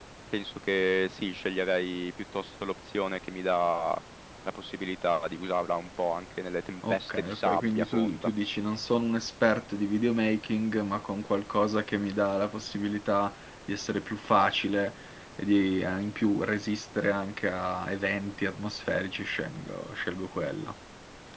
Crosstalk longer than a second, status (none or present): present